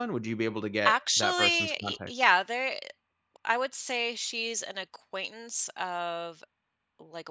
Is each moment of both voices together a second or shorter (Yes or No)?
No